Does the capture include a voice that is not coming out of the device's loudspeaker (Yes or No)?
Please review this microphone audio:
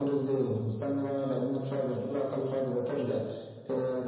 No